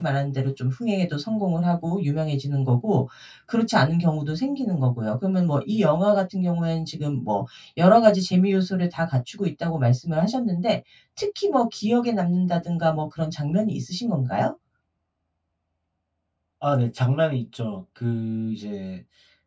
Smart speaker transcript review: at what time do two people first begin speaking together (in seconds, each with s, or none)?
none